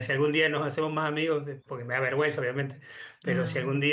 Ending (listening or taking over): listening